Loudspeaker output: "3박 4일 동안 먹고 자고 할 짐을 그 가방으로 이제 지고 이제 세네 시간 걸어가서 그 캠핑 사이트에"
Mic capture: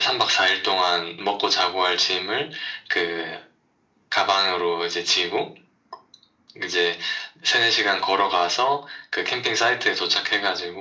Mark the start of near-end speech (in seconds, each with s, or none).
none